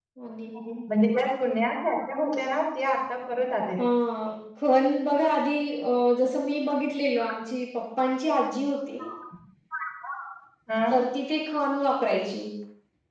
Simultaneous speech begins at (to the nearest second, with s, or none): none